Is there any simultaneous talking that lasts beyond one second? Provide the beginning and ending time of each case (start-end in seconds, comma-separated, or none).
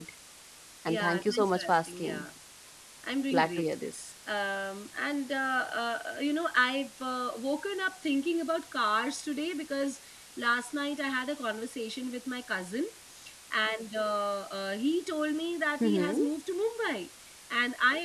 0.9-2.2